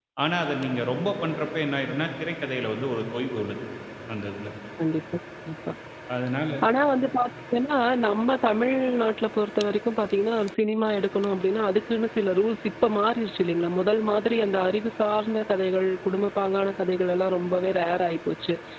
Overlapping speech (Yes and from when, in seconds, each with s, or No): No